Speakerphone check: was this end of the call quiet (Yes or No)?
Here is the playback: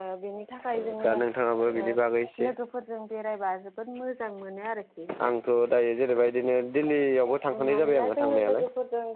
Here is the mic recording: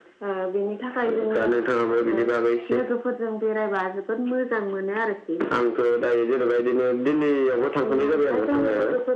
Yes